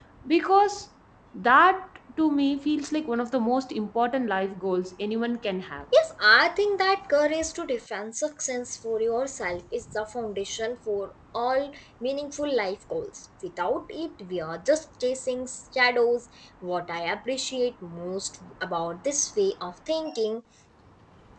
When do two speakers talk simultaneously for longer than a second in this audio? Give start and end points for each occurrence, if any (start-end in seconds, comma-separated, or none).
none